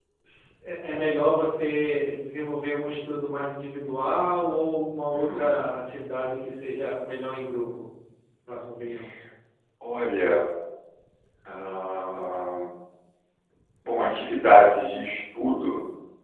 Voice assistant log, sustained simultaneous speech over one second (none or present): none